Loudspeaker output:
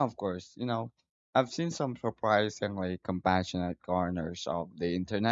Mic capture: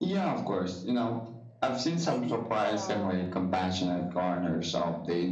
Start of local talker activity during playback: 2.0 s

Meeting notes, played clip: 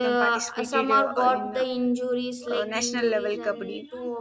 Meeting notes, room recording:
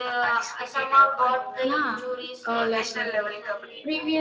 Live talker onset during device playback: 1.6 s

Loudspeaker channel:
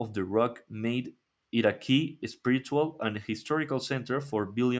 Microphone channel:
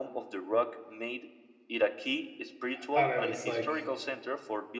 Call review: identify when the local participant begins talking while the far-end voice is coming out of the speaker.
2.7 s

